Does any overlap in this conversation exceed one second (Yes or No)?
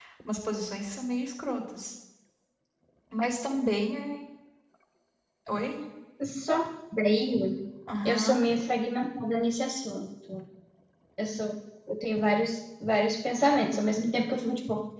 No